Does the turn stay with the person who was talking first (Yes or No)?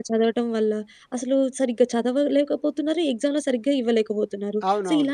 Yes